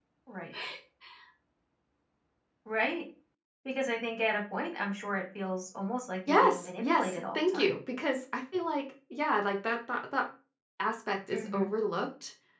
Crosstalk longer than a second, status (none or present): present